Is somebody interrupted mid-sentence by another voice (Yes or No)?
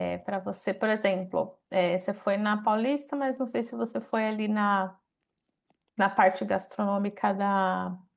No